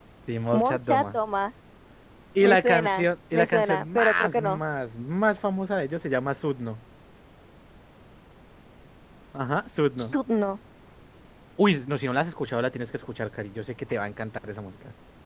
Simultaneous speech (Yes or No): Yes